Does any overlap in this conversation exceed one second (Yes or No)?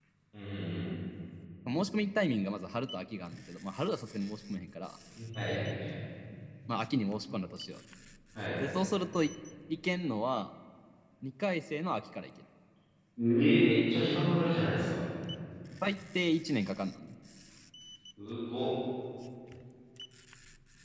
No